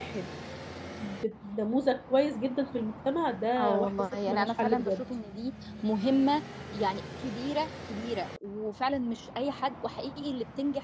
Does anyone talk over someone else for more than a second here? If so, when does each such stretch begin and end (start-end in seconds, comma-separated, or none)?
3.6-5.0